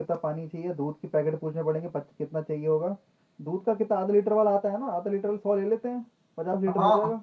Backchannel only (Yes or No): No